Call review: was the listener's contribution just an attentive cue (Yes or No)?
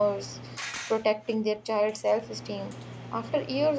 Yes